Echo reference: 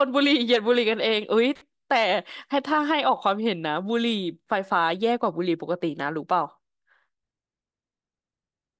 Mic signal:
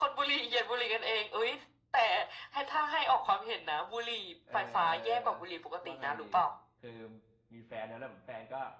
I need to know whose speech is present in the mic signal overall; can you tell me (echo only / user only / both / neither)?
both